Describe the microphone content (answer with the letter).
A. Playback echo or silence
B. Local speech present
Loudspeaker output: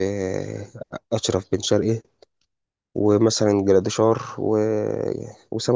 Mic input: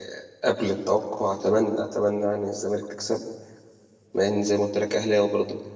B